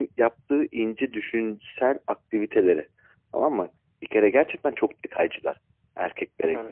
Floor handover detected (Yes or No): No